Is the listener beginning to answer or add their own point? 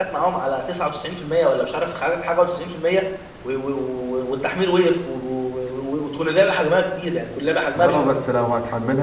Yes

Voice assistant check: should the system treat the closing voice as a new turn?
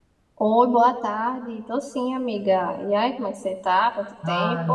Yes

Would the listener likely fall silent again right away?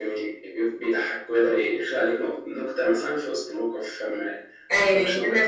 No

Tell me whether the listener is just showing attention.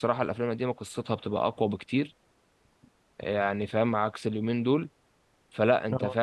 Yes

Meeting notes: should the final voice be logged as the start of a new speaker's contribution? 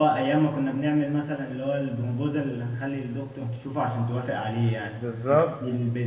No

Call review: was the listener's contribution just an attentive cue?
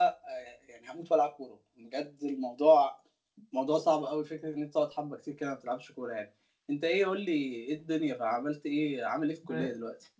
No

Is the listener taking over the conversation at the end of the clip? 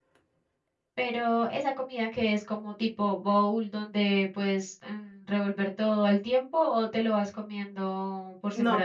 Yes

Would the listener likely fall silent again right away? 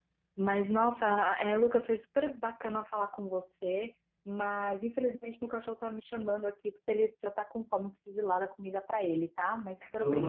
No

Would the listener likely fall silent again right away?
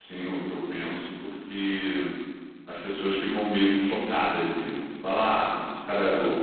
Yes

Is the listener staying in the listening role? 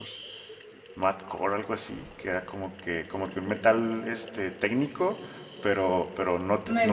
Yes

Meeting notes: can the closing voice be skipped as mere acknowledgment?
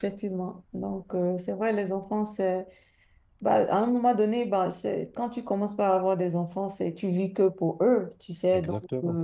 Yes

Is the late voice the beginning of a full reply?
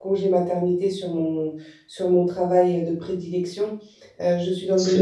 No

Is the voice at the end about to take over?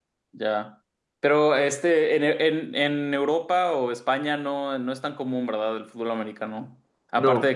No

